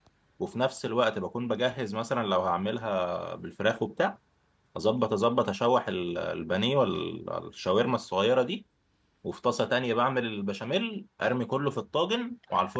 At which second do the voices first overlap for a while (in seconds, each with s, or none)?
none